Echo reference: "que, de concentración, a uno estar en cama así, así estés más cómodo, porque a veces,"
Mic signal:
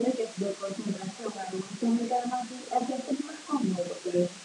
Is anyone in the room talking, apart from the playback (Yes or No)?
No